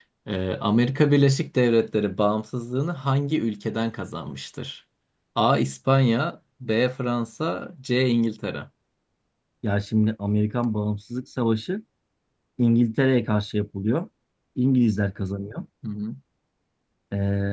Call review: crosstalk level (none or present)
none